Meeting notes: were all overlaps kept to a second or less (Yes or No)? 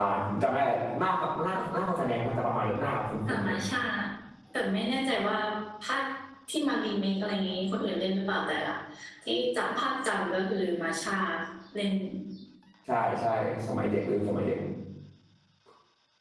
Yes